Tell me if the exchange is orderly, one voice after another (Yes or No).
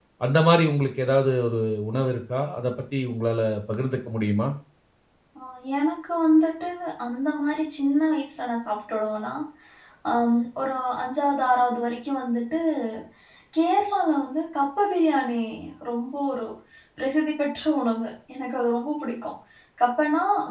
Yes